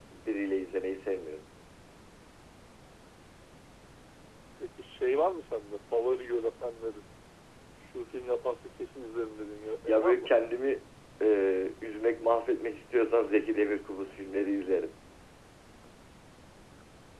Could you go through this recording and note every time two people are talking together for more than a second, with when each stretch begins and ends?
none

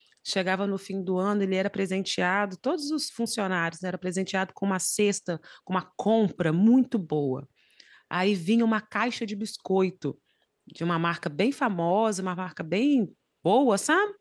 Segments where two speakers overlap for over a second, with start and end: none

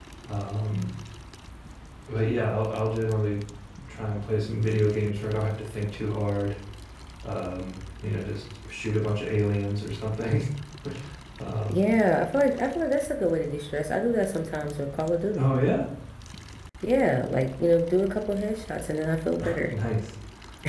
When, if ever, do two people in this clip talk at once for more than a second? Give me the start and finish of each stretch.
none

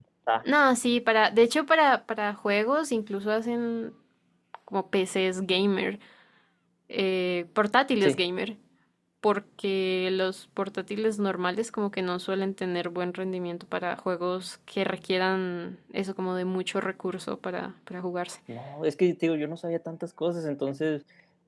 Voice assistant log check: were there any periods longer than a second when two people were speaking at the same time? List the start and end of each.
none

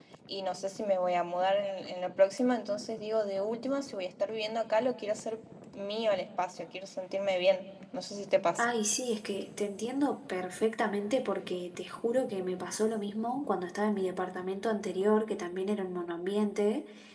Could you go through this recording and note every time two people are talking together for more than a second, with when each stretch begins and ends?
none

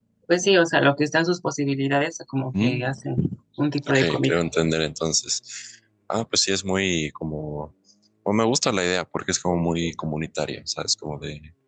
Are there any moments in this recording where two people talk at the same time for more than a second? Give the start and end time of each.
none

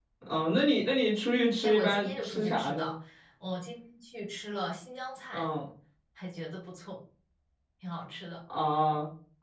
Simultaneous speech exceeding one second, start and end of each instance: 1.6-2.9

